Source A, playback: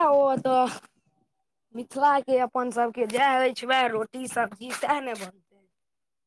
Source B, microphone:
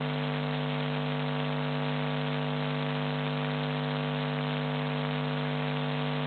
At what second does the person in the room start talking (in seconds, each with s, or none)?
none